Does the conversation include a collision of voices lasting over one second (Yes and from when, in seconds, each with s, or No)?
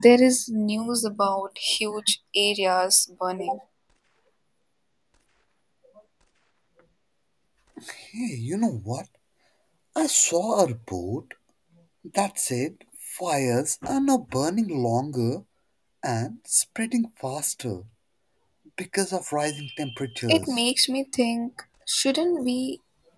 No